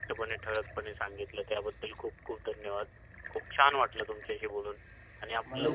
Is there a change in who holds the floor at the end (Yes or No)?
Yes